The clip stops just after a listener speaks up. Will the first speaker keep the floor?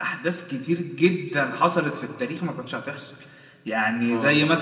Yes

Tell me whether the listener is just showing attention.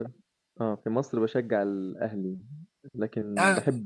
Yes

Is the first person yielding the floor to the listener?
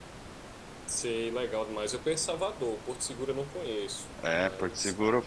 Yes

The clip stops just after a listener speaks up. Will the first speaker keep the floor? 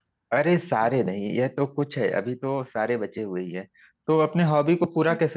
Yes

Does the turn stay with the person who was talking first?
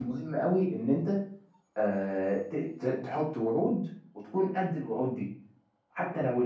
Yes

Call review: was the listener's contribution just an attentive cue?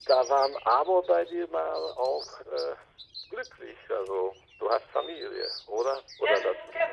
No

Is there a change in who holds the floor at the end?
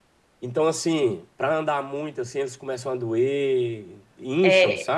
Yes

